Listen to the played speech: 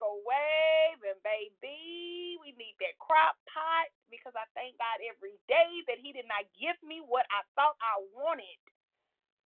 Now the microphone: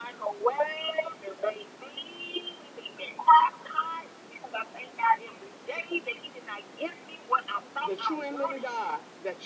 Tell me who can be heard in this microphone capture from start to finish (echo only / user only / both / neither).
both